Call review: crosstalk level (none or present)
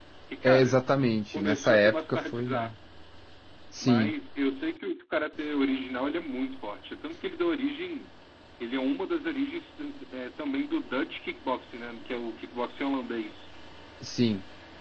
present